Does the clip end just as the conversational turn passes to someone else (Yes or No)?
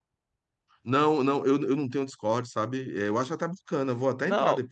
Yes